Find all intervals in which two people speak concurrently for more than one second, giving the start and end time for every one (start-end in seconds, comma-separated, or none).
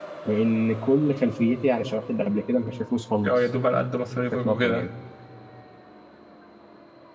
none